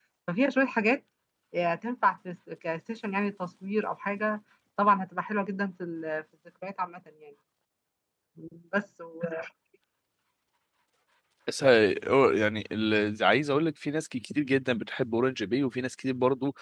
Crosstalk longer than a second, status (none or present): none